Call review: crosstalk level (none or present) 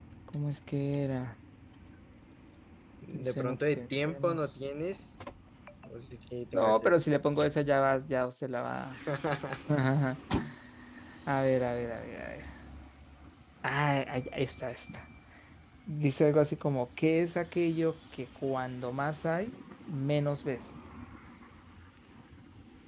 present